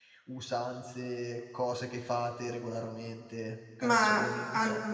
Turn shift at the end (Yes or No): Yes